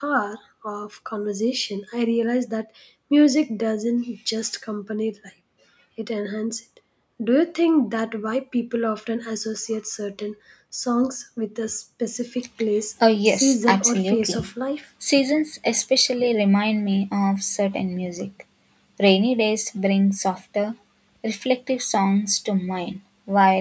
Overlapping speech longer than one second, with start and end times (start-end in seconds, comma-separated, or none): 13.2-14.4